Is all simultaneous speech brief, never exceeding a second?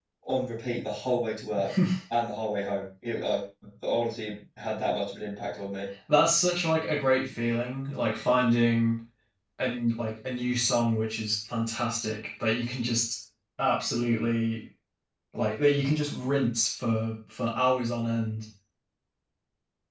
Yes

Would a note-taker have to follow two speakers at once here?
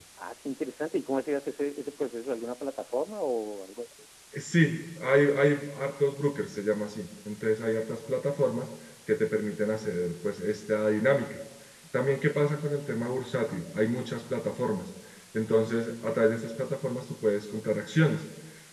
No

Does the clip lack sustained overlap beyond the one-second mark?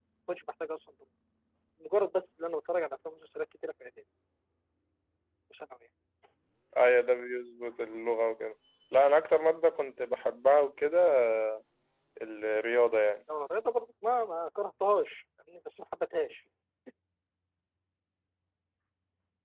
Yes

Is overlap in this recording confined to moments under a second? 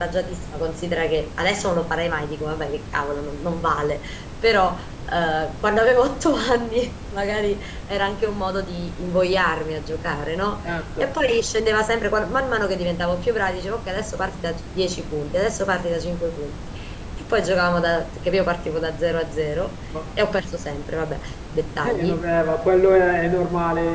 Yes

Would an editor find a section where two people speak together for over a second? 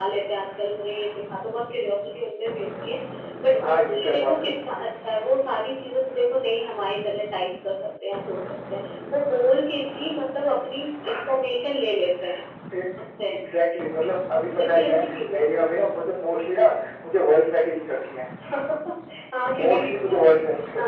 Yes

